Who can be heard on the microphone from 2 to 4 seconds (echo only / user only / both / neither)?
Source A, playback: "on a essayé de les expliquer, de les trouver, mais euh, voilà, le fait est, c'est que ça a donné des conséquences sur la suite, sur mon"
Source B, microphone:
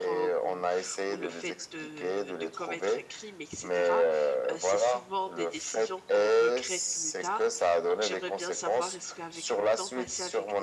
both